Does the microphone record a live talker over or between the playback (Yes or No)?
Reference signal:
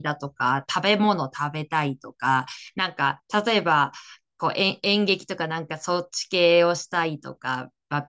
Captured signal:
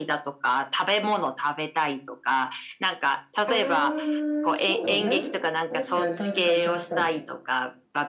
Yes